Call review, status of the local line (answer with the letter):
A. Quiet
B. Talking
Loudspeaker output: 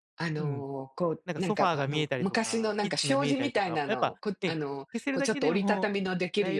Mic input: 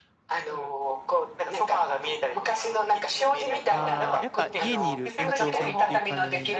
B